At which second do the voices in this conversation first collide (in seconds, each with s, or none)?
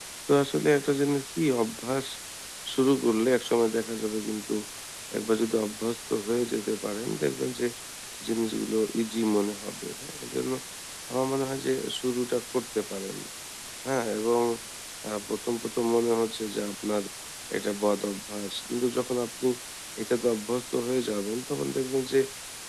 none